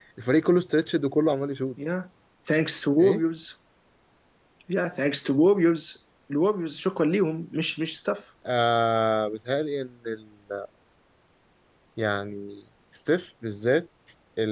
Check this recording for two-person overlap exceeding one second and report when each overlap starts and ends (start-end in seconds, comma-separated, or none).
none